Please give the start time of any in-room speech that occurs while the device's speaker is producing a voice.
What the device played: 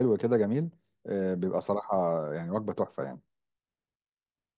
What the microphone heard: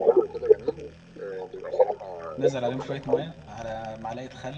2.4 s

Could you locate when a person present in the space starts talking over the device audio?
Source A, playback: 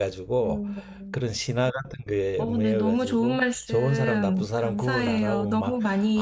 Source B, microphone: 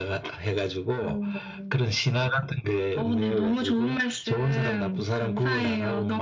none

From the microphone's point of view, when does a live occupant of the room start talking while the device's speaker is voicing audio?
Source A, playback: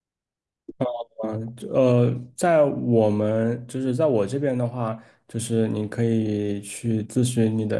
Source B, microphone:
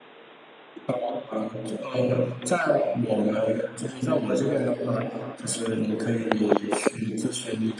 none

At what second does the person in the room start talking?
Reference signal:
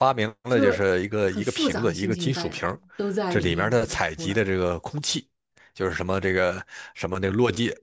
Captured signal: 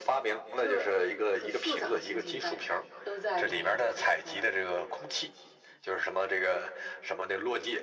none

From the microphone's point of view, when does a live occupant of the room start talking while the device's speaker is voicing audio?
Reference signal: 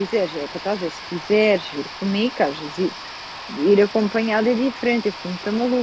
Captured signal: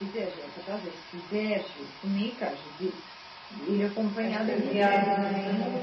4.2 s

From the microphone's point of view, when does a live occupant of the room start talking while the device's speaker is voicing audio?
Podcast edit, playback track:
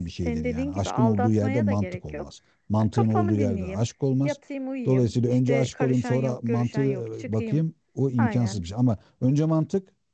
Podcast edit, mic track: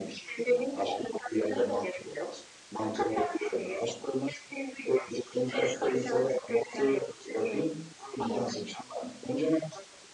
none

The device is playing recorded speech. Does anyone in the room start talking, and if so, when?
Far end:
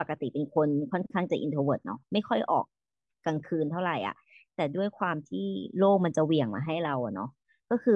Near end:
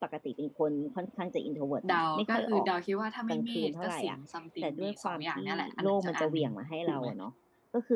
1.9 s

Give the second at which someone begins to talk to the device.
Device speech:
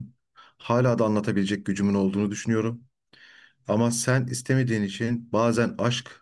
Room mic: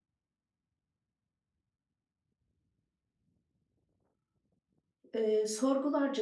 5.1 s

